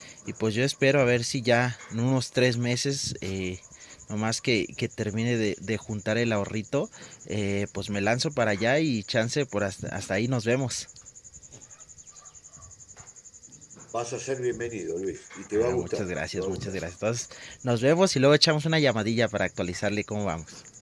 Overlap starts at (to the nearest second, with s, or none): 16 s